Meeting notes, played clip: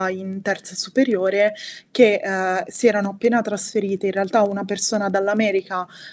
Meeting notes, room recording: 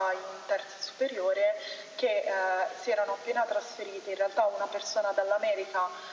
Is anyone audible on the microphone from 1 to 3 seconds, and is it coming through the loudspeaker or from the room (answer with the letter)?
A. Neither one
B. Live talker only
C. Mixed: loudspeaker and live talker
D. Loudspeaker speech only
D